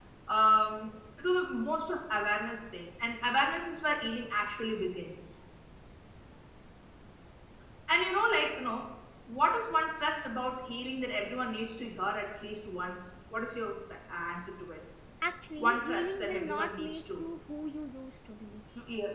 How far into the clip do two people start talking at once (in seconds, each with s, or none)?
15.6 s